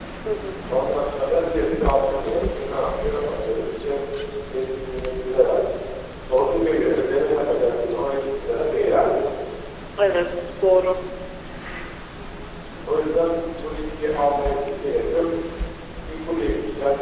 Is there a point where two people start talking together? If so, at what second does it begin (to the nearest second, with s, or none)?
none